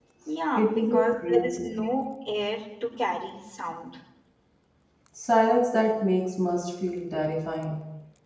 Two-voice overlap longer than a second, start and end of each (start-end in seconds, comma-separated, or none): 0.6-1.8